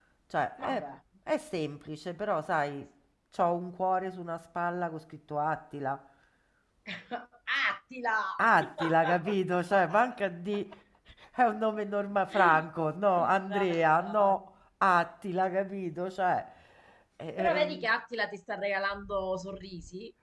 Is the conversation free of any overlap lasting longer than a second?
No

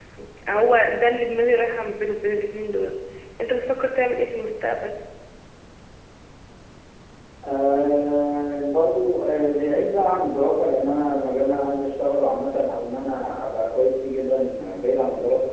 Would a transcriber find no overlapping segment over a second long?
Yes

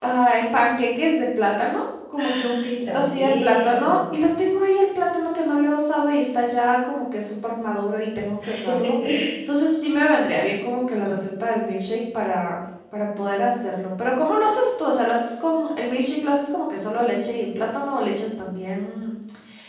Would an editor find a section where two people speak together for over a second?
Yes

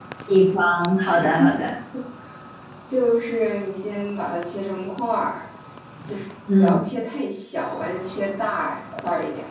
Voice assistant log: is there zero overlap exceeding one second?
Yes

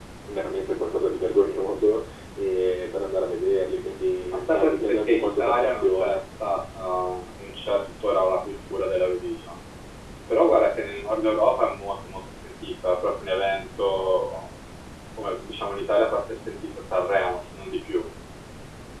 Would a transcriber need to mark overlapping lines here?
Yes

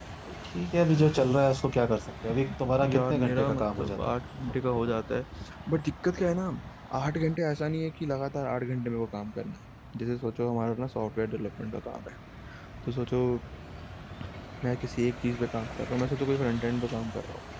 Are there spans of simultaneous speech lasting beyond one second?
Yes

